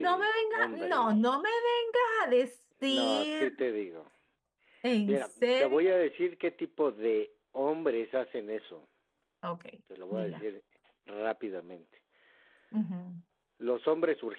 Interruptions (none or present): present